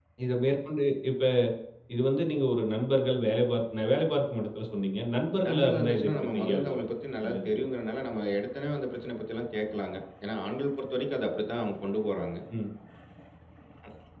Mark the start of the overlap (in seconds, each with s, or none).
5.5 s